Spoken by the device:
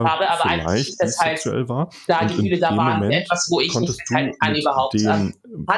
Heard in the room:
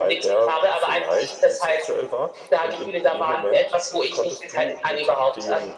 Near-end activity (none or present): none